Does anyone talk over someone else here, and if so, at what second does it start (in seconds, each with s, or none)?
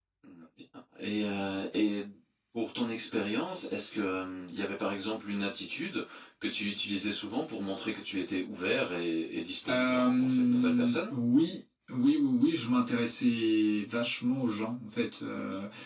9.7 s